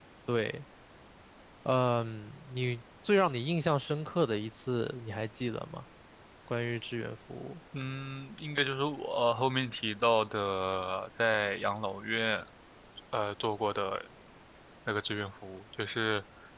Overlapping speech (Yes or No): No